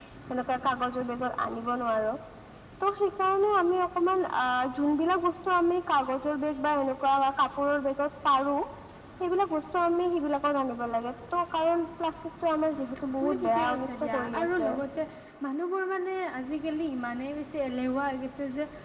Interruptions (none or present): present